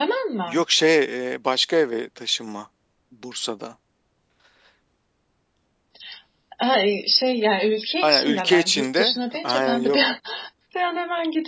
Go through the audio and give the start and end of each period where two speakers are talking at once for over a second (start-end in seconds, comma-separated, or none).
8.0-10.1